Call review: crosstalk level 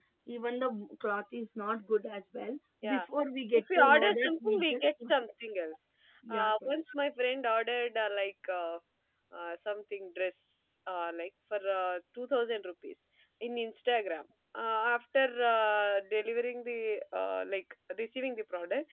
present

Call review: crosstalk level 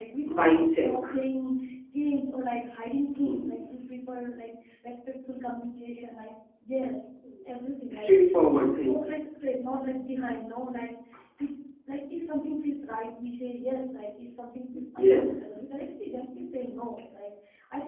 present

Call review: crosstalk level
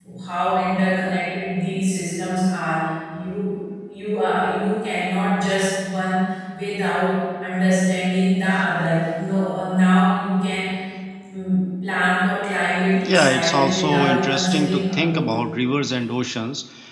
present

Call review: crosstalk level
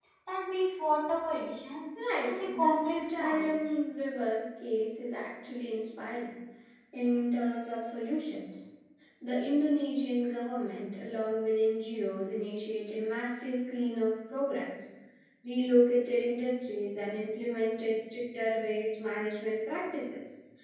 present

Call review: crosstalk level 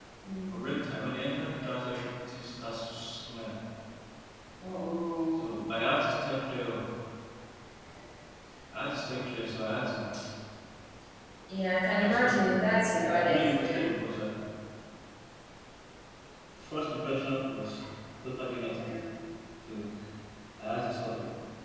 present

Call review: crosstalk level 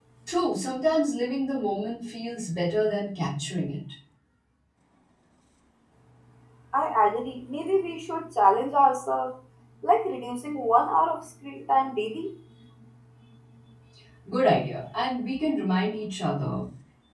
none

